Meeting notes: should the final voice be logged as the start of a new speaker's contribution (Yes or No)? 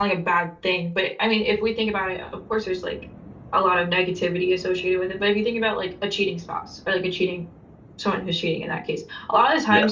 No